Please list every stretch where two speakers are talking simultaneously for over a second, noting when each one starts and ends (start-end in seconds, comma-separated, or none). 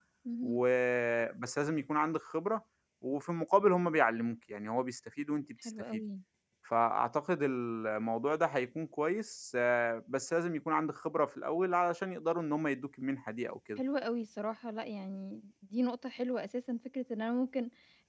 none